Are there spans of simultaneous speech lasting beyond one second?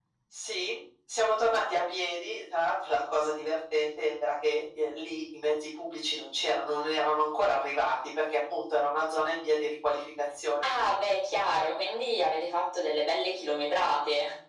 No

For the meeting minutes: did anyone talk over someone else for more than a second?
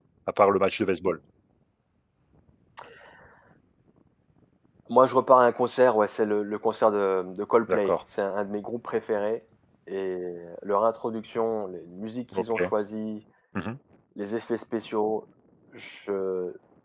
No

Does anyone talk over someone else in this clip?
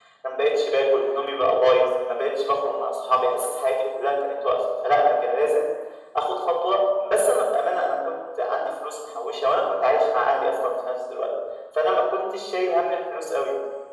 No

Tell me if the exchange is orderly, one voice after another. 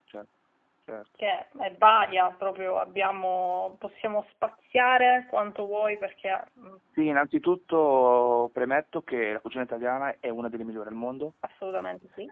Yes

